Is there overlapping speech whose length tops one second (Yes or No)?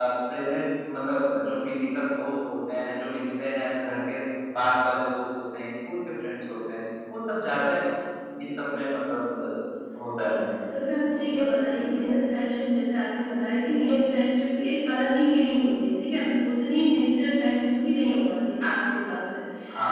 Yes